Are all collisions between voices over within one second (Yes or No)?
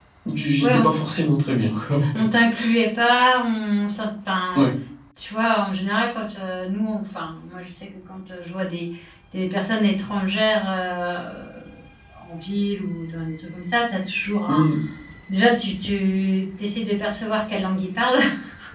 Yes